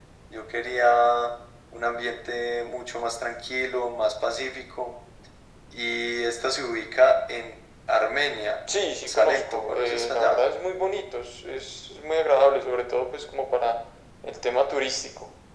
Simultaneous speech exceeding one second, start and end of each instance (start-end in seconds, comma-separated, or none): 8.7-10.4